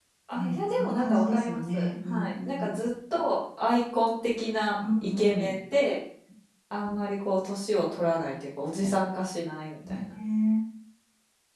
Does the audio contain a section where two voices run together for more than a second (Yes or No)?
Yes